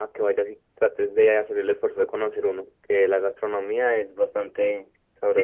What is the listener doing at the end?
taking over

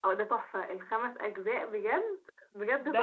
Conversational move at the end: taking over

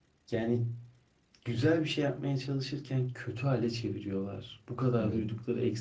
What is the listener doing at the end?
listening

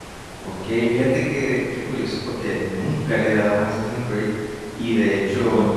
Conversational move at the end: listening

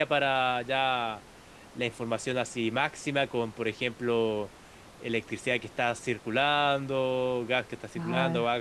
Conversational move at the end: listening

